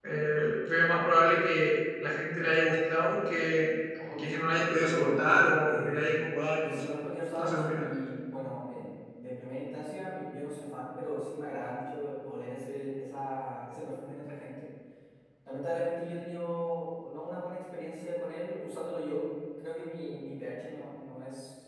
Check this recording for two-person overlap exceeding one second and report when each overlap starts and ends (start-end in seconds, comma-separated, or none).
4.8-6.1